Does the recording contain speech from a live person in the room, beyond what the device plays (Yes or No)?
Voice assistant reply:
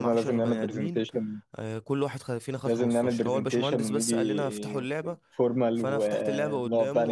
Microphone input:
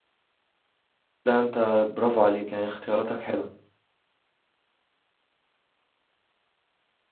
Yes